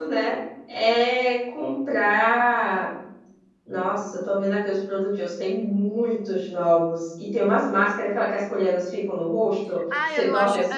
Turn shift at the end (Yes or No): Yes